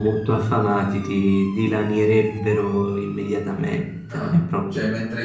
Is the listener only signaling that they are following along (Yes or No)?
No